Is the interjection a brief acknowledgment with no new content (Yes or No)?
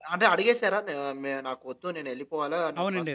No